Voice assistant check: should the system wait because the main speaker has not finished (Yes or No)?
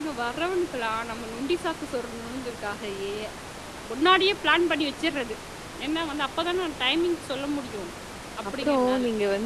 No